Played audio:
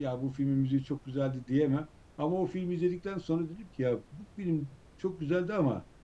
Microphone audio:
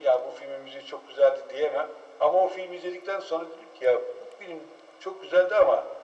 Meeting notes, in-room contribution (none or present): none